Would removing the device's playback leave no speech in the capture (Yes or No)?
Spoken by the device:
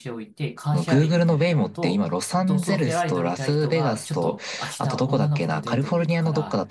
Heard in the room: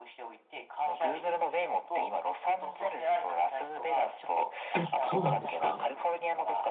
No